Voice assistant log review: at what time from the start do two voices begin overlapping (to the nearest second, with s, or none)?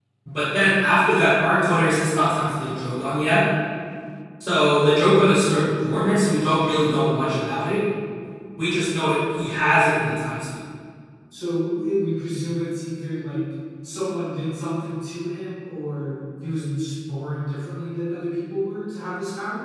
none